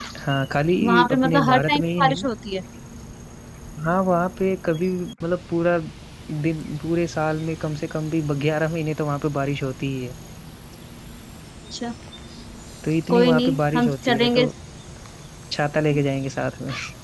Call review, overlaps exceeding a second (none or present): present